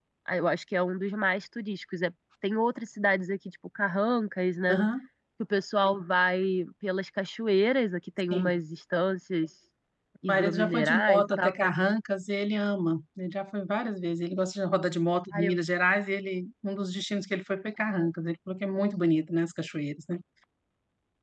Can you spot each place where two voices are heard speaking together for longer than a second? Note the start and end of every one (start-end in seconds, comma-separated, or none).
10.3-11.7